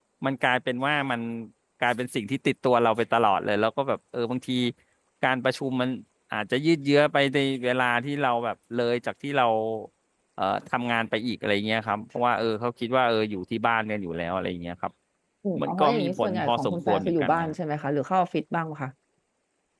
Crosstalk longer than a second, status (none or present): present